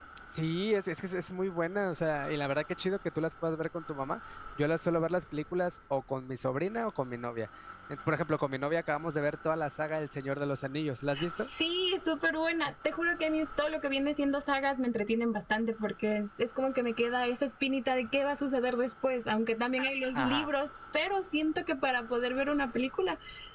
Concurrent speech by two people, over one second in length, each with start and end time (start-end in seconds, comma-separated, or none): none